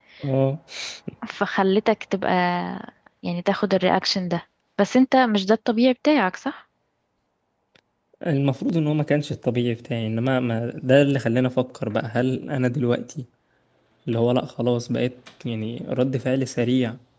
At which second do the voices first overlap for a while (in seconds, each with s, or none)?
none